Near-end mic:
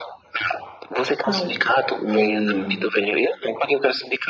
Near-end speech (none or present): present